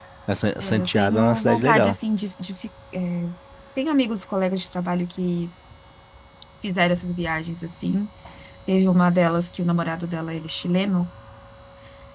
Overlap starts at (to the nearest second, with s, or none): 1 s